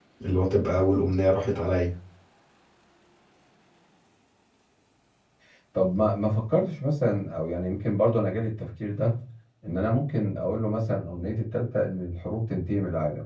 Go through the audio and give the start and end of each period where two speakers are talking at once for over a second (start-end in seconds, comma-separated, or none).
none